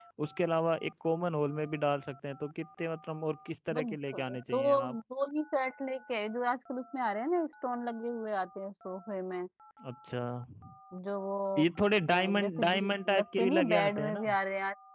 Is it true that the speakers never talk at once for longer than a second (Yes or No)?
No